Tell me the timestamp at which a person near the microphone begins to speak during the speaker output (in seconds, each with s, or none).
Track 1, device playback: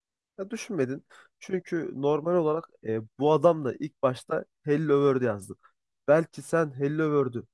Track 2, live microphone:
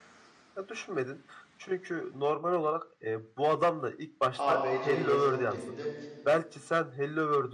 4.4 s